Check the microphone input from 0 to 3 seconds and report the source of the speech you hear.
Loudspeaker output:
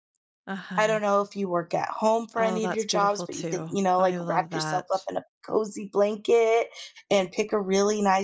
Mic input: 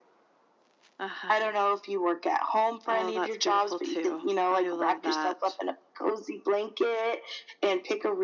echo only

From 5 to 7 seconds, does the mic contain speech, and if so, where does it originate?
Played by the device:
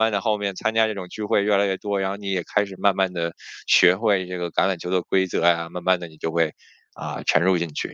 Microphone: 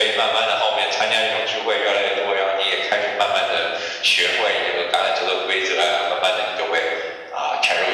echo only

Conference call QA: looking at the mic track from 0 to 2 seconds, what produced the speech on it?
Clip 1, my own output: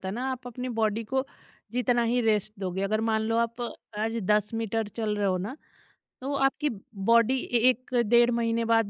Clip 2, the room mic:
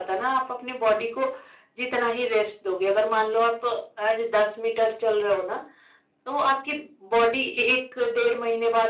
echo only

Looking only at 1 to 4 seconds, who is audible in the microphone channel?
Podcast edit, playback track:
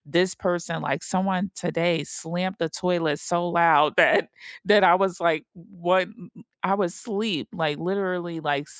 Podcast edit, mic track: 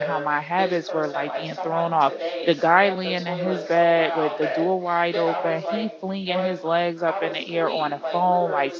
both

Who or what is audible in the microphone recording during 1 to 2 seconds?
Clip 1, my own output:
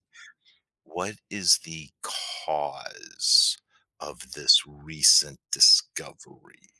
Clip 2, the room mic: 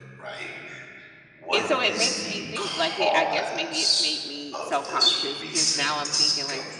both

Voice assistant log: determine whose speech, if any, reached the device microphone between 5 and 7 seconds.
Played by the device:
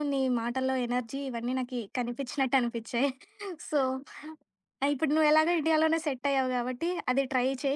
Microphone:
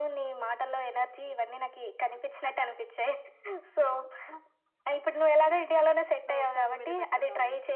both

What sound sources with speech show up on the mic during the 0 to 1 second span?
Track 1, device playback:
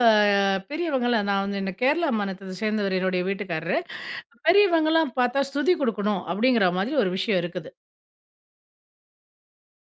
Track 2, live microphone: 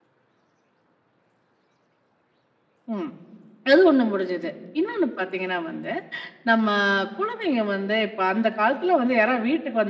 neither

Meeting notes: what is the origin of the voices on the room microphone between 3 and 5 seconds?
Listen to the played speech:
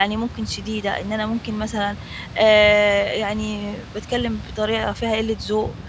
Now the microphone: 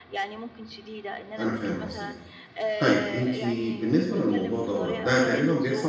both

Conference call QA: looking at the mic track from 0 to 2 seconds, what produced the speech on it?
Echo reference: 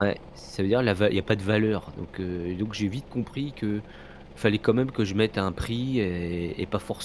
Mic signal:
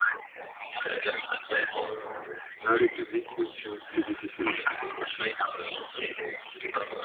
echo only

